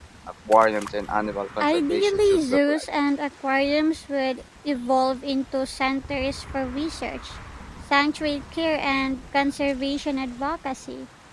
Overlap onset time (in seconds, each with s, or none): 1.6 s